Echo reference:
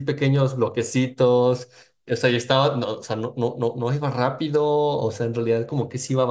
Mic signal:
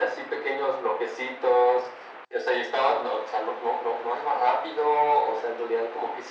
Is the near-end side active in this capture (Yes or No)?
No